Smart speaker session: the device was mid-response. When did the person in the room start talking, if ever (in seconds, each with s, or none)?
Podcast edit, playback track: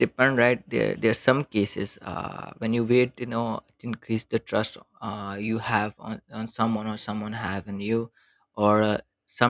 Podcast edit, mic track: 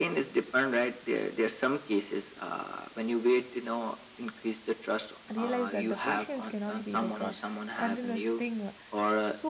5.3 s